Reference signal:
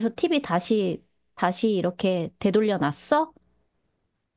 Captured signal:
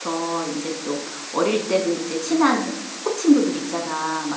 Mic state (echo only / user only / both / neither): user only